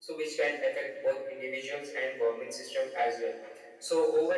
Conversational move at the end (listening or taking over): listening